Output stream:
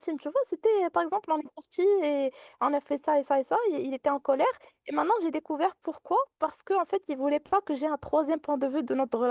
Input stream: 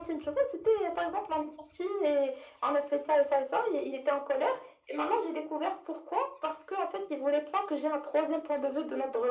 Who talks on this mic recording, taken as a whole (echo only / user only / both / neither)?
echo only